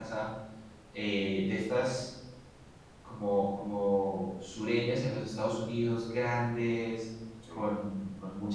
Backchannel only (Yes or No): Yes